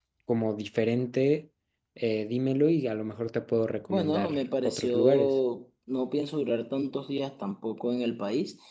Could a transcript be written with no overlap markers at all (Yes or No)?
No